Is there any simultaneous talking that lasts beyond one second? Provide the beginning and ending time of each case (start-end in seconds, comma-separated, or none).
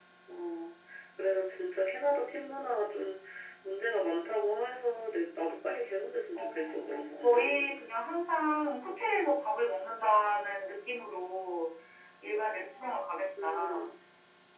6.3-7.8